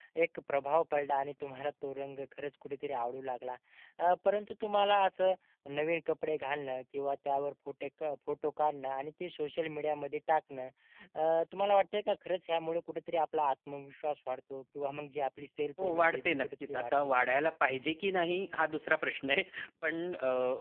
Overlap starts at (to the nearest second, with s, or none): 16 s